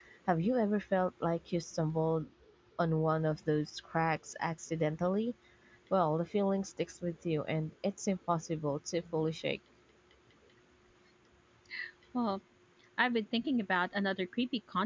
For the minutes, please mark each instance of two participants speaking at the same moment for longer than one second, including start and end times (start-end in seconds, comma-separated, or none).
none